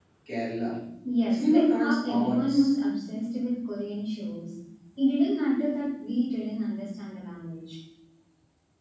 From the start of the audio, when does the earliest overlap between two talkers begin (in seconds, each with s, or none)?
1.3 s